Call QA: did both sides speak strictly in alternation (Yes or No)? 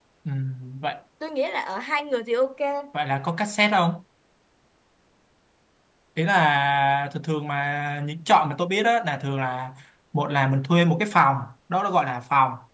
Yes